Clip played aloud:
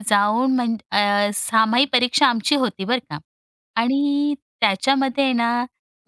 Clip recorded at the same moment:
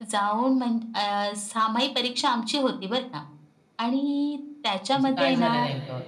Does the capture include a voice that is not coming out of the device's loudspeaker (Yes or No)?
Yes